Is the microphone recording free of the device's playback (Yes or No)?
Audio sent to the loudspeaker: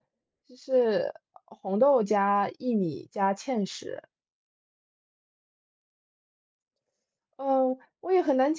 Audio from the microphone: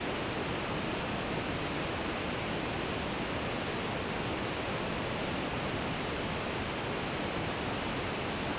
Yes